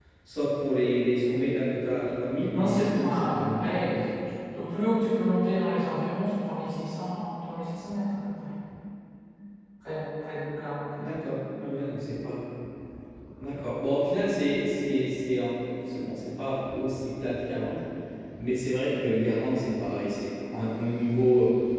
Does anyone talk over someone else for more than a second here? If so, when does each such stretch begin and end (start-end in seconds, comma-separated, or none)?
2.6-3.9